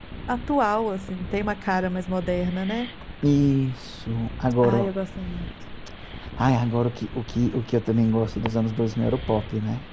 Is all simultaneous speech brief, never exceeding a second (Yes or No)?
Yes